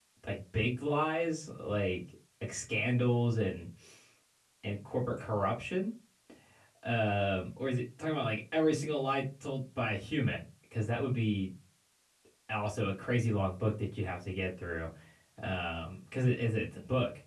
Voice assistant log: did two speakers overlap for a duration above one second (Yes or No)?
No